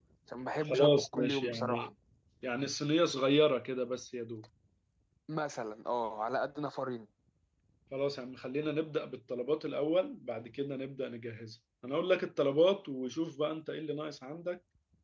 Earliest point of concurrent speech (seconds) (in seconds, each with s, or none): 0.6 s